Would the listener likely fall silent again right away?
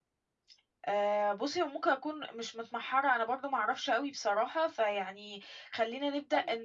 No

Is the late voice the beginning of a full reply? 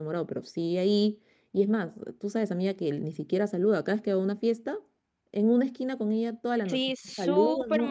Yes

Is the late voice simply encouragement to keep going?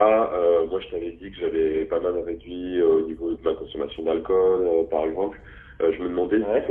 Yes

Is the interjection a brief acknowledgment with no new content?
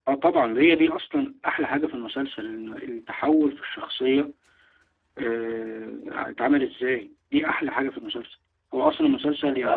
Yes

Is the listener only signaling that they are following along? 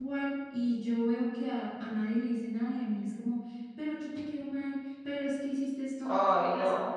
Yes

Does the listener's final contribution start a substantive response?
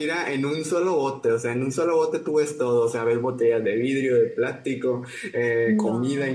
No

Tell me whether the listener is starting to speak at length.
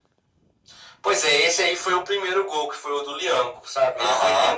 No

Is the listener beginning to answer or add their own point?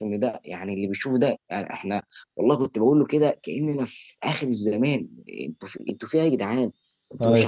No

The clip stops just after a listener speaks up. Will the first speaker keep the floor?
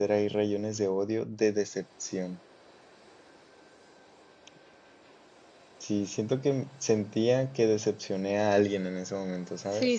No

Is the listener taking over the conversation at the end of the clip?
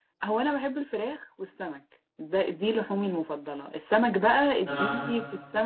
No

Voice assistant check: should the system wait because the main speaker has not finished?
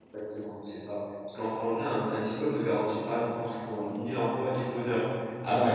Yes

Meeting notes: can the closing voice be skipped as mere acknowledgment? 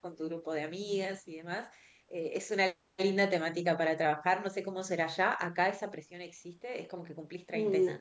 Yes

